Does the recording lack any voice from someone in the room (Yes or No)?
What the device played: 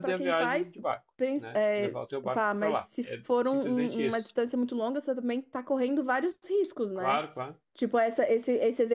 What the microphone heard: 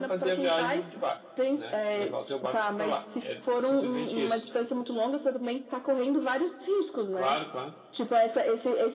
Yes